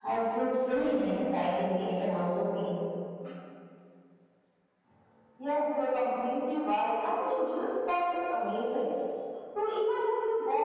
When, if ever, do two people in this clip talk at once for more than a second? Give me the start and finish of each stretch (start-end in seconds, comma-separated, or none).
none